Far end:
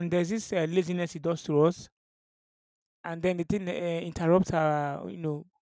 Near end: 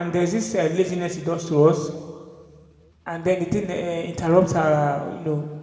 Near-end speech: none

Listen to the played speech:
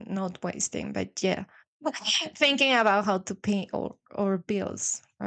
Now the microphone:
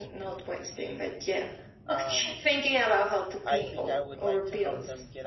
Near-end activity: present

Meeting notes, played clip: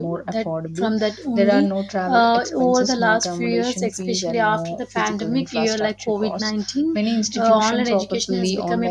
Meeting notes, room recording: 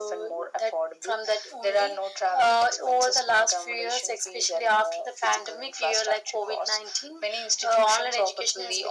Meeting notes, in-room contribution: none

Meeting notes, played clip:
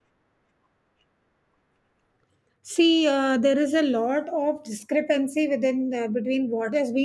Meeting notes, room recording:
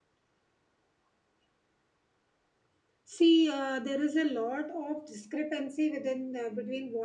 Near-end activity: none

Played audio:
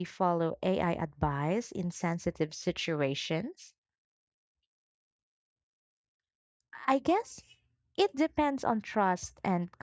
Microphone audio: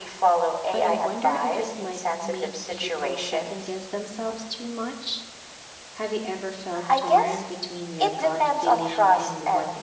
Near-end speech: present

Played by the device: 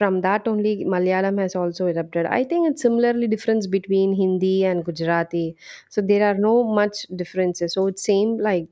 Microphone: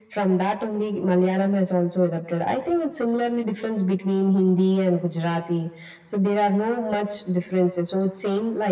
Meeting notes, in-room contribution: none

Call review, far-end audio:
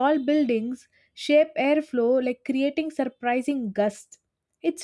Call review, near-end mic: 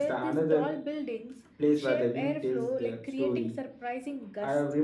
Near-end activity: present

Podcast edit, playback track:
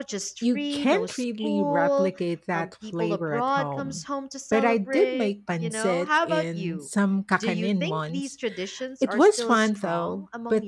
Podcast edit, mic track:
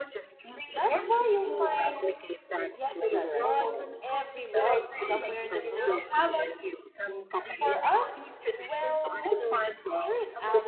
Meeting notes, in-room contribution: present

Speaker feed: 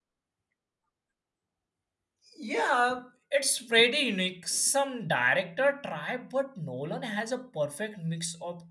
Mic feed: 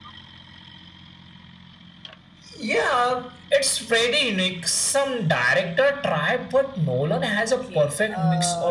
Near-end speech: present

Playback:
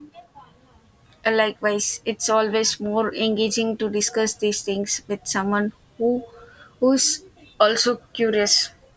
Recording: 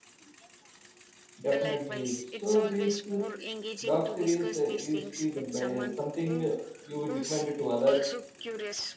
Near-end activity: present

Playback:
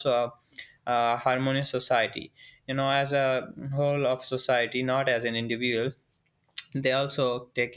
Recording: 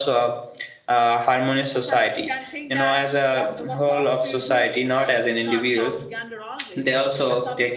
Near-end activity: present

